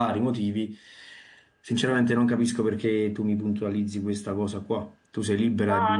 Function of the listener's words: taking over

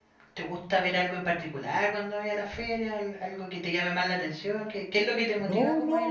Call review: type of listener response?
taking over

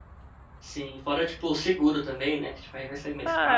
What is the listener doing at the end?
taking over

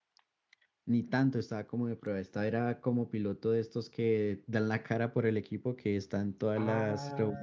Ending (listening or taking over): taking over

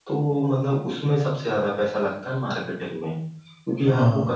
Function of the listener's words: listening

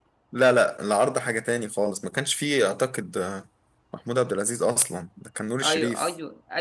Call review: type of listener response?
taking over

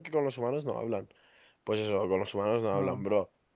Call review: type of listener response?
listening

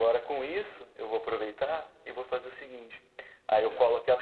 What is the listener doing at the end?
listening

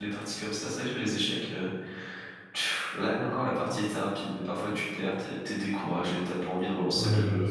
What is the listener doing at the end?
taking over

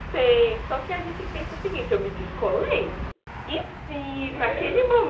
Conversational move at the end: listening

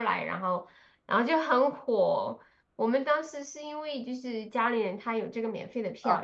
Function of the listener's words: taking over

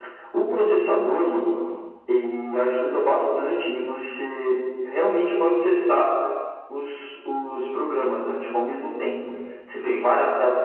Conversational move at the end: listening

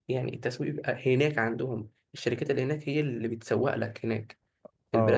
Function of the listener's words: taking over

